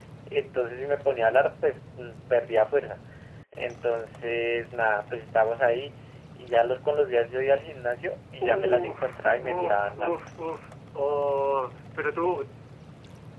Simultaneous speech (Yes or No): Yes